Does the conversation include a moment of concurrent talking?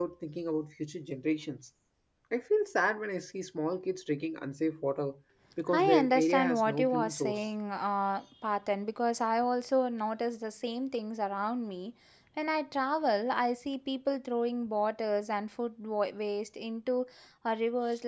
Yes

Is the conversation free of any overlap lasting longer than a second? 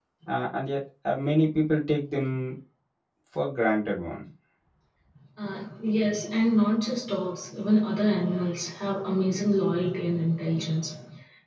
Yes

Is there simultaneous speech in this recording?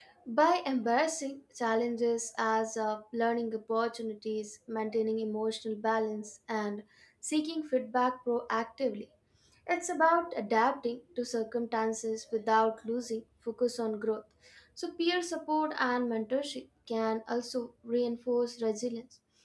No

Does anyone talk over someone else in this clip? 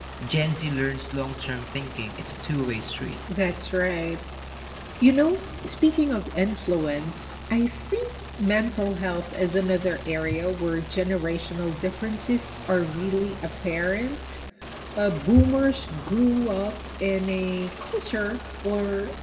No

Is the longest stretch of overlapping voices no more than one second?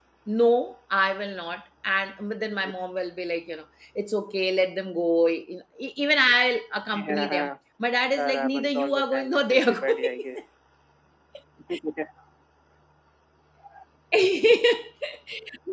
No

